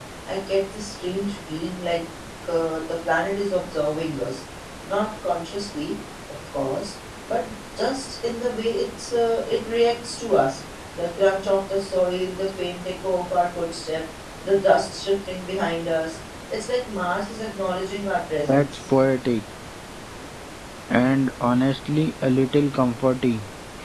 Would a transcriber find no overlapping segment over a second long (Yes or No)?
Yes